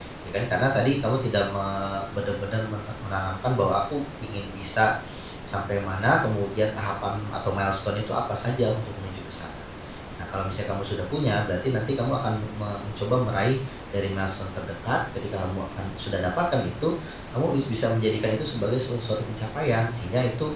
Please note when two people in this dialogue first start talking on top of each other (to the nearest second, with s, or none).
none